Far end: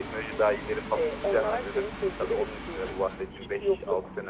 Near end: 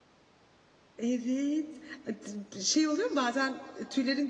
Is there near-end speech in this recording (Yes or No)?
Yes